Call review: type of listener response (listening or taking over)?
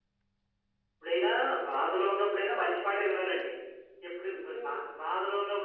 listening